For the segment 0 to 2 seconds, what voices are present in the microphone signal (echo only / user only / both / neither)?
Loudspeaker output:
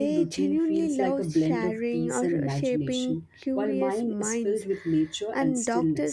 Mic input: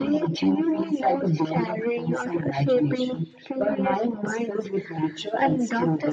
echo only